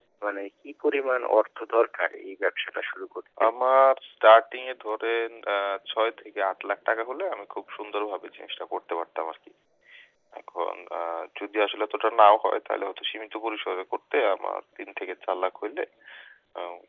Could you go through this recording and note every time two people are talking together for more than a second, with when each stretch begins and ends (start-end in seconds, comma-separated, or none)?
none